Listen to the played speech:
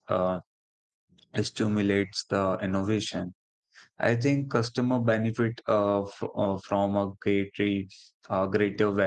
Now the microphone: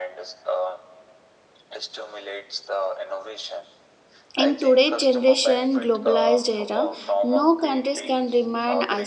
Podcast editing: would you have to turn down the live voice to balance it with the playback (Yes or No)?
Yes